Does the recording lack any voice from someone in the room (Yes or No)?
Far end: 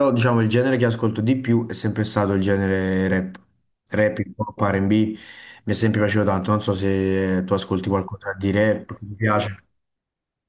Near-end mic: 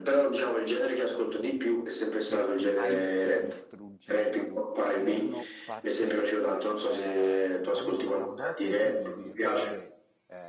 No